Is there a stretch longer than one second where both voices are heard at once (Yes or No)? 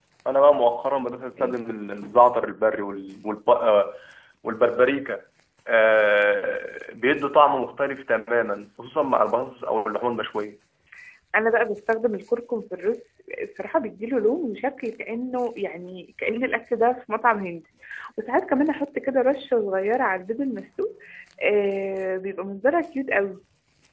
No